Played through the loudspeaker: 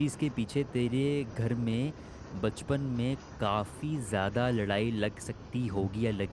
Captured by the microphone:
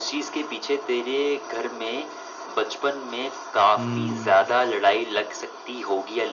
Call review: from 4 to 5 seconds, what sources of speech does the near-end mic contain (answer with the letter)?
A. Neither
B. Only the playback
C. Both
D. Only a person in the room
C